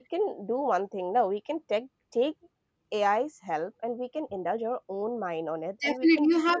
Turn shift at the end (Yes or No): Yes